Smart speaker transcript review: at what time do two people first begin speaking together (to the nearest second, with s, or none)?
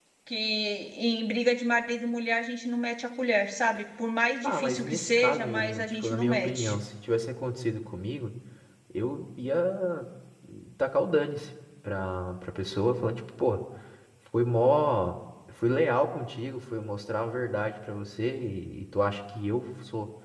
4 s